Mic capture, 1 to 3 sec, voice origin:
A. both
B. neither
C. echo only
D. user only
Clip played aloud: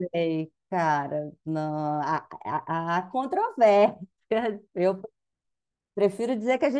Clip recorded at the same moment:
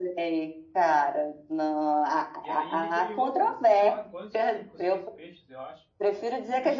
A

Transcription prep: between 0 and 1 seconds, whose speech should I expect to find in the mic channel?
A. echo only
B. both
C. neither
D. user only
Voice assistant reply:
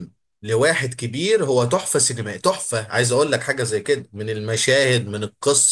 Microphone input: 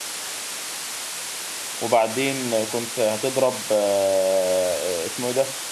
C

